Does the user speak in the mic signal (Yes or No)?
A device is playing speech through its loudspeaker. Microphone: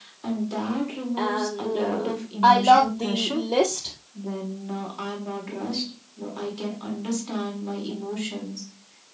Yes